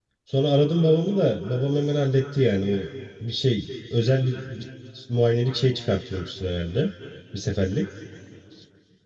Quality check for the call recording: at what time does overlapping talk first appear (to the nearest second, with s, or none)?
none